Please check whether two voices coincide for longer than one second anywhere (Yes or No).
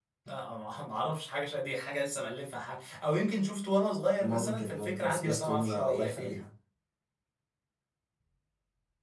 Yes